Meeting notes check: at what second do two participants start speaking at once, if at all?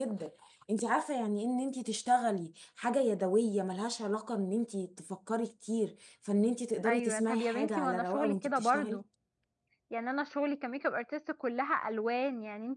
6.8 s

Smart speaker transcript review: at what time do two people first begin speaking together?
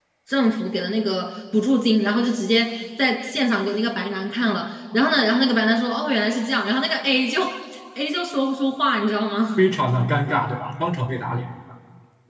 none

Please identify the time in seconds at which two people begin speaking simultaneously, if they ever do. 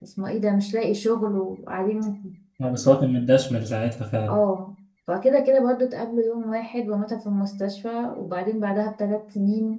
none

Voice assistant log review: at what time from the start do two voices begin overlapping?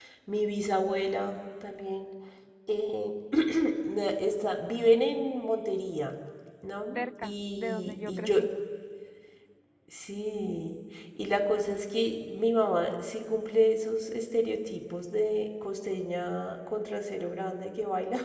7.0 s

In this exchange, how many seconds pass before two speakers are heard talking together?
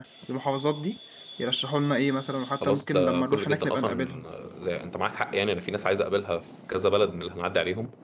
2.6 s

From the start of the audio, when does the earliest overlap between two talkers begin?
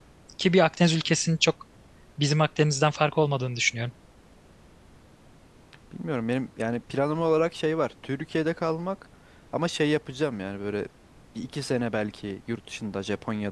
none

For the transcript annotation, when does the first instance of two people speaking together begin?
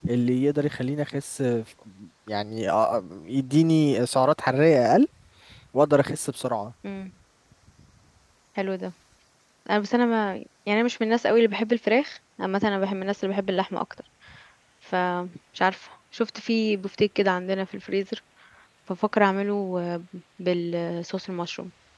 none

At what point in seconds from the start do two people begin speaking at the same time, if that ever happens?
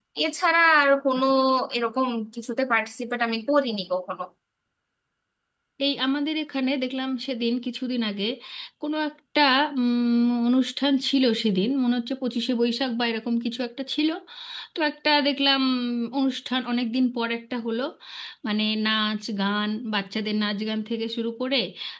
none

